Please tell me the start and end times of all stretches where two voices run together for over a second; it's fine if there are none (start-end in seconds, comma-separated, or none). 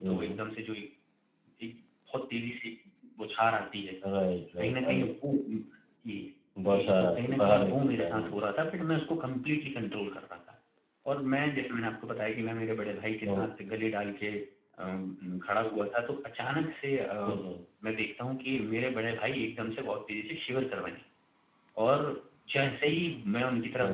6.7-8.3